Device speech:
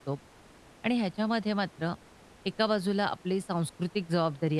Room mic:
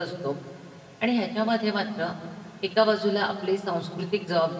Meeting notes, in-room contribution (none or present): none